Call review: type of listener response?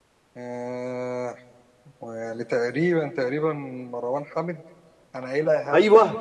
taking over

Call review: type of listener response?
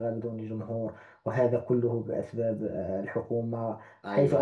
listening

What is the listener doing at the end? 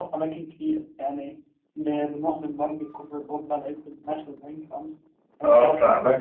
taking over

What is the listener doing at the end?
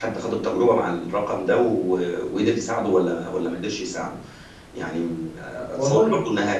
listening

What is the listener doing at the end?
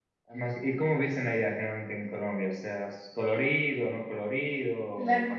taking over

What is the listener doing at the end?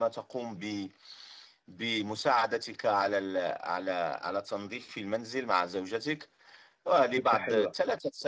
listening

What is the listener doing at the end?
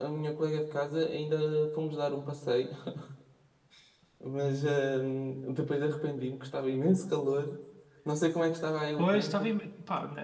taking over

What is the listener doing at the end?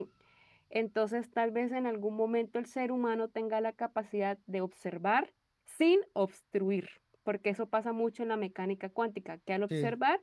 taking over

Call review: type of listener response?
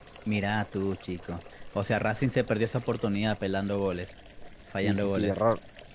taking over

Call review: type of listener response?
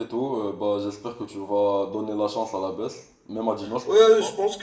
taking over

